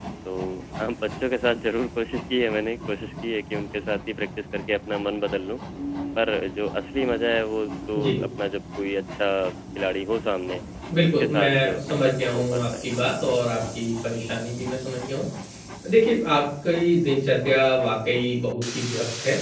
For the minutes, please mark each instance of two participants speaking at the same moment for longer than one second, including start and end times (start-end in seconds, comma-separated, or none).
11.0-12.9